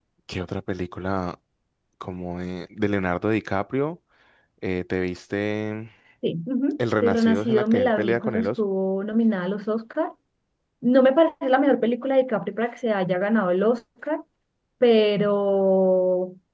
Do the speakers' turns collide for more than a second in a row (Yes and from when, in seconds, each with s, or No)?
Yes, from 7.0 s